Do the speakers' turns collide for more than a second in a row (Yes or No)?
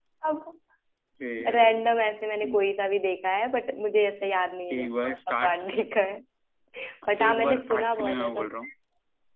Yes